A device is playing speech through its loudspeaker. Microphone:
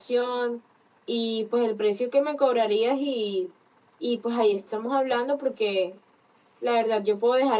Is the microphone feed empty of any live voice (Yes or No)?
Yes